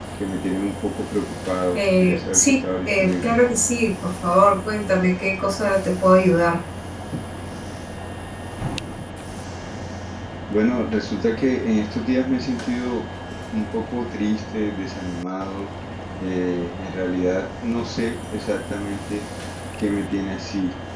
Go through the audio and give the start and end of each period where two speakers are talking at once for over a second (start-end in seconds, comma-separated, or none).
1.7-3.4